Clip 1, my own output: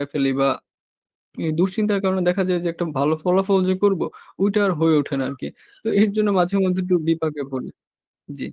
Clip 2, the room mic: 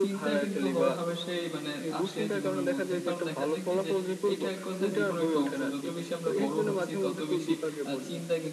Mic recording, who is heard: both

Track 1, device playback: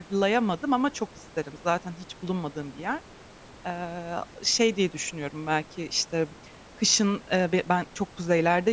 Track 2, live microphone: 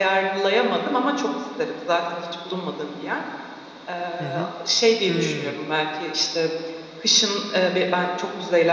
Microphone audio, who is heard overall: both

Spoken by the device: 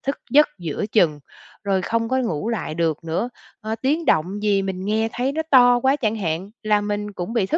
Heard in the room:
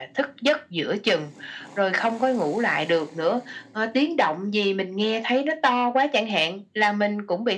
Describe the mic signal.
echo only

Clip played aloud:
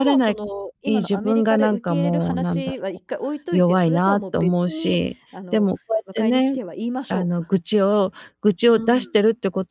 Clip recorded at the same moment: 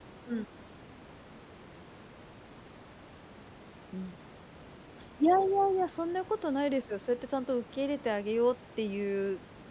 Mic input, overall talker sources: user only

